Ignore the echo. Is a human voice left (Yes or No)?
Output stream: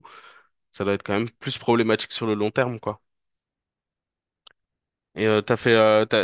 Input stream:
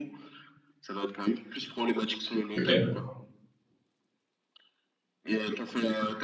Yes